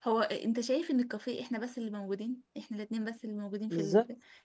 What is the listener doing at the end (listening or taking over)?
taking over